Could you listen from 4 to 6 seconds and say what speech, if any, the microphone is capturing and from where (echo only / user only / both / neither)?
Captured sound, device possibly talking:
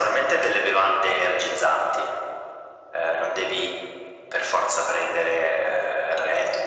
echo only